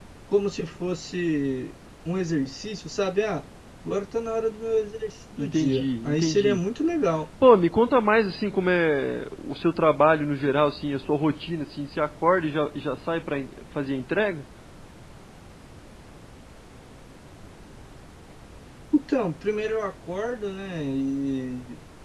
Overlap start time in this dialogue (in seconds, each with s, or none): 5.4 s